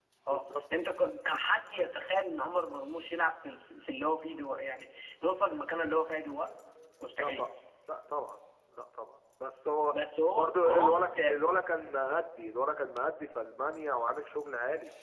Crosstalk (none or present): present